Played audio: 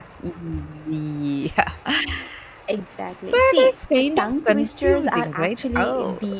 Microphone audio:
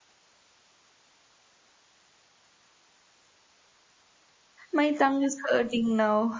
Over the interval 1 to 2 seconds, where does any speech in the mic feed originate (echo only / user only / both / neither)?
neither